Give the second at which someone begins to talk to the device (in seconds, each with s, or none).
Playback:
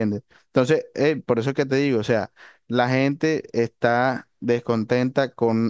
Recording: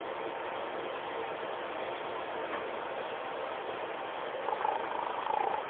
none